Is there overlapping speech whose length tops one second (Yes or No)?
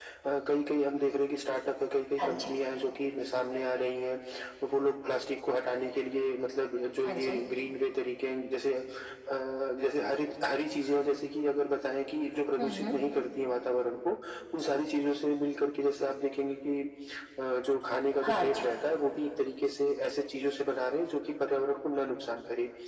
No